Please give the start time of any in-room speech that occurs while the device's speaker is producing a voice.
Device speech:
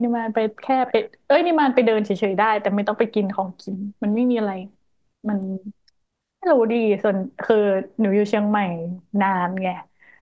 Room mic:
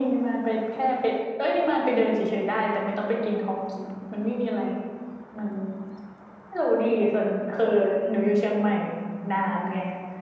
none

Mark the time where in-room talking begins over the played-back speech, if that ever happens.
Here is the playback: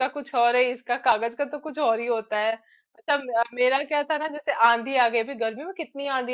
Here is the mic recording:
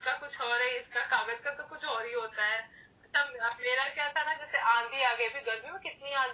none

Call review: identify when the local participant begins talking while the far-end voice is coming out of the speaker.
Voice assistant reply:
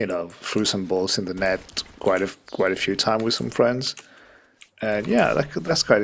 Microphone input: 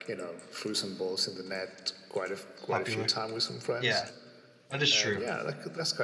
2.7 s

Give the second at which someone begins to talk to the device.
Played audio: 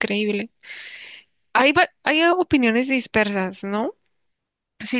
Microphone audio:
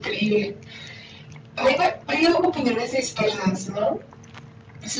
none

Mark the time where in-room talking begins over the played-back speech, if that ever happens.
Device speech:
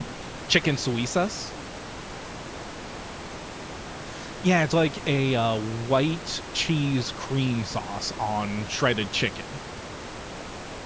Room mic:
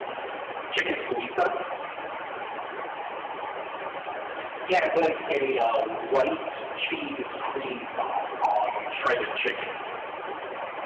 none

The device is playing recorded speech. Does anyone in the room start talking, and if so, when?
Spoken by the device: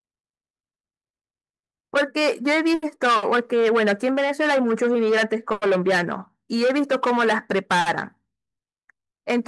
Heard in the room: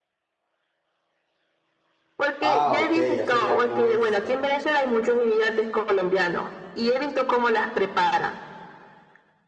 2.4 s

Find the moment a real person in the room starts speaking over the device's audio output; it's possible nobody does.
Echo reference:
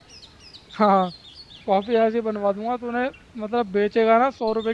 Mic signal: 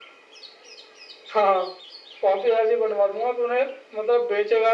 none

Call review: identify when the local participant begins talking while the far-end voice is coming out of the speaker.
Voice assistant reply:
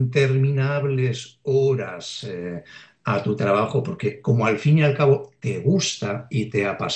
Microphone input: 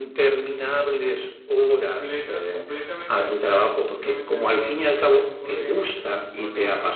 1.6 s

